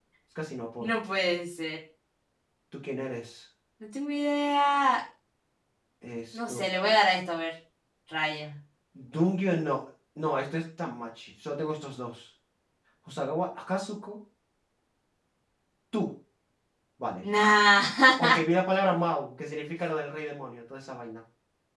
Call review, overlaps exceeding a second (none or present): none